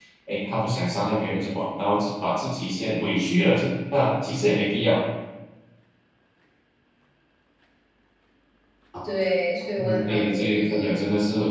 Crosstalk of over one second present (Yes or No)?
Yes